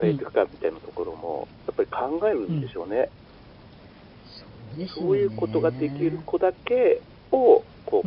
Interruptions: present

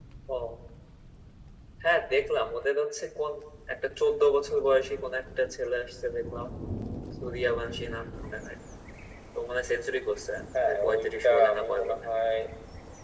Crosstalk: present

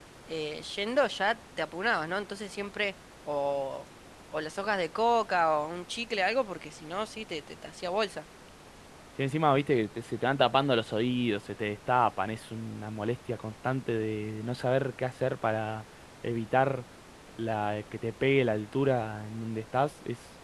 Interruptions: none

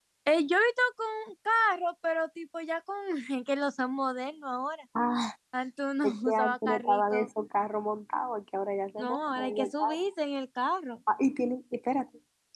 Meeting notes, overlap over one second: present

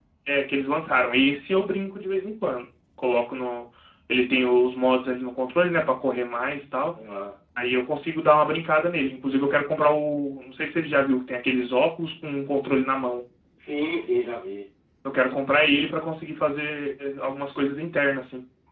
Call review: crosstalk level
none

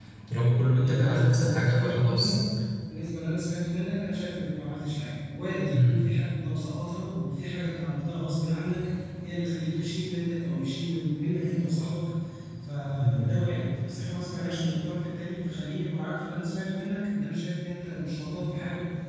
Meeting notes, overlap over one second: present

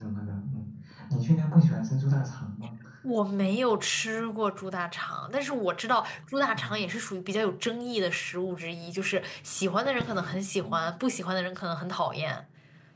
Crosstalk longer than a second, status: none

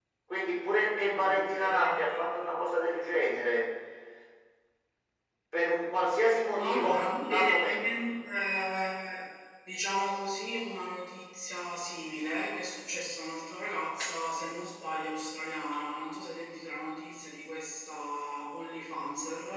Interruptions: present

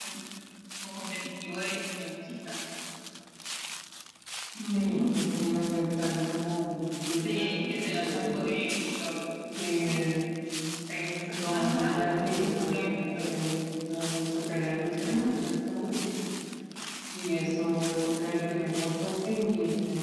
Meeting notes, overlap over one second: present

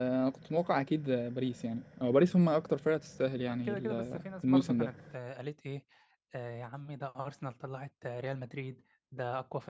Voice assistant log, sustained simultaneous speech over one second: present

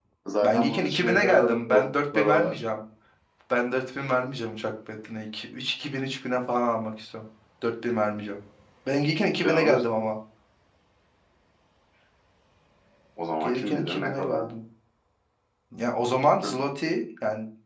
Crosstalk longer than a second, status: present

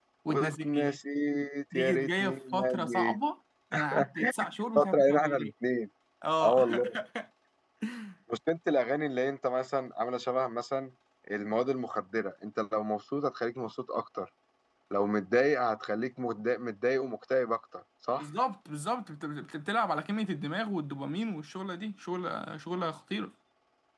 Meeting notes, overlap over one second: present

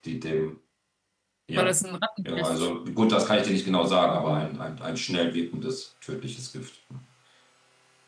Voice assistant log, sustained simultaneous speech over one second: none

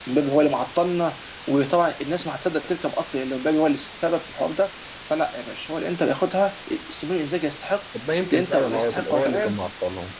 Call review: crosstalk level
present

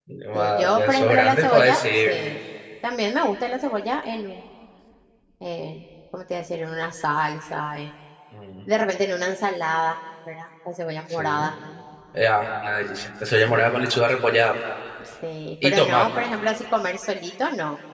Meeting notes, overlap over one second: present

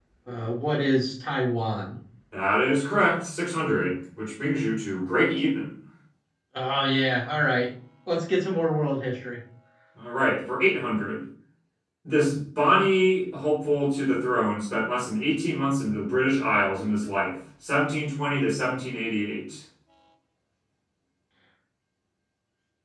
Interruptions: none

